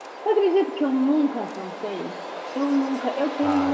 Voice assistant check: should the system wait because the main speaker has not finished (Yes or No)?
Yes